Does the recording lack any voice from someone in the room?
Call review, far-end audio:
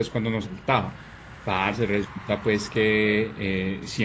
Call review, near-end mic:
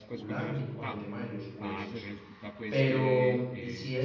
No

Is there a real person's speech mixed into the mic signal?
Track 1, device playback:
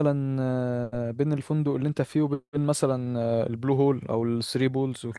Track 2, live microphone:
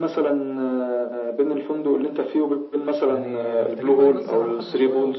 Yes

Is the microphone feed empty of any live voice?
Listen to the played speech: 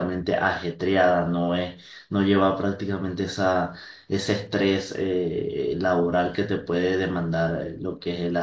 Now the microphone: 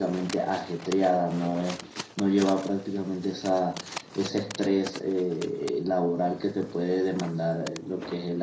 Yes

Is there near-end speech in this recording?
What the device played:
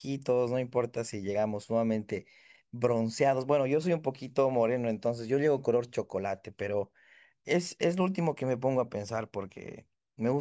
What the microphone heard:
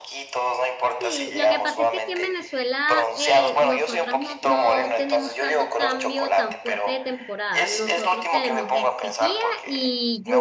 Yes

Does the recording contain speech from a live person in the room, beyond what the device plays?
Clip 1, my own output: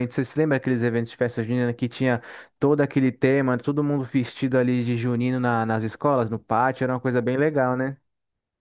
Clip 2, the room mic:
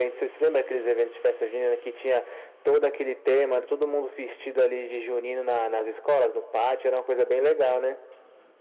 No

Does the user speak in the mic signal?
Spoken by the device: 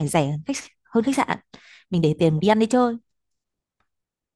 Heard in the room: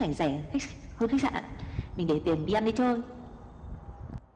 No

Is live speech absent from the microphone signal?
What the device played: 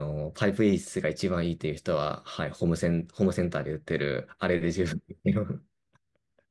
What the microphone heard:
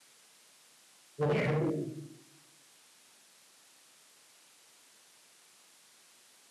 No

